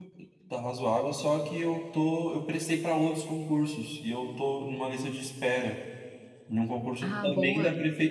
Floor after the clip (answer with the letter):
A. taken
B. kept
B